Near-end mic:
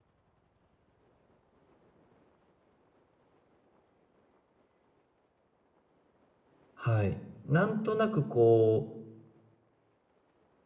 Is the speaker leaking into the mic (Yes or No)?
No